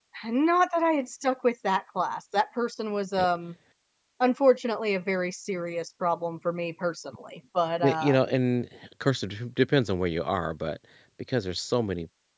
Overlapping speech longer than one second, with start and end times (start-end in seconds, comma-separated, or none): none